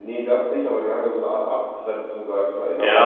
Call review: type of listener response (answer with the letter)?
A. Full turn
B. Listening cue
A